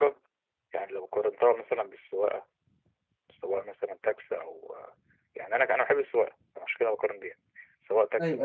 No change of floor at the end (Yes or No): Yes